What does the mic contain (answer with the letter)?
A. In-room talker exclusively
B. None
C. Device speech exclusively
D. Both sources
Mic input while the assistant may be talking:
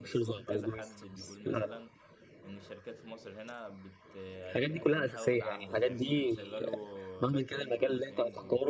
D